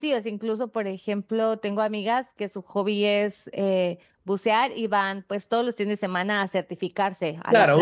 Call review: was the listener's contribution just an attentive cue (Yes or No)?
No